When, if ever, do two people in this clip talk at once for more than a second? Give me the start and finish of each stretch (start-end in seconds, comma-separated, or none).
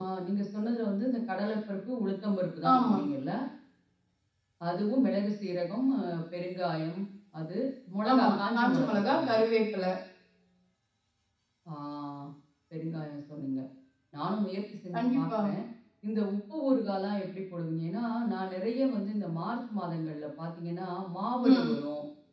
8.1-9.4